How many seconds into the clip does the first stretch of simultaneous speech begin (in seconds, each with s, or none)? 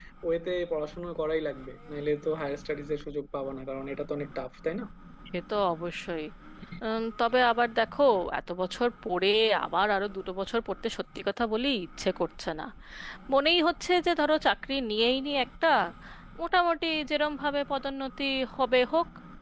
none